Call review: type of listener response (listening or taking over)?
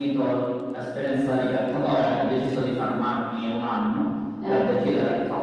listening